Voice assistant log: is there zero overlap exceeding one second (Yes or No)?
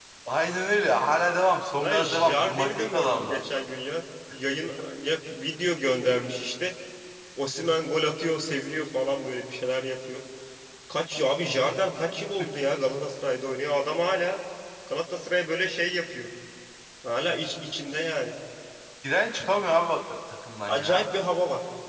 No